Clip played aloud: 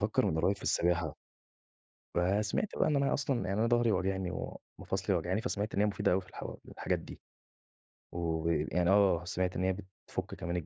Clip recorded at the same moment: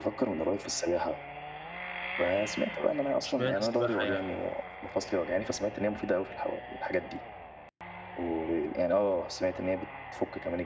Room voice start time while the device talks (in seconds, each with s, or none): 3.2 s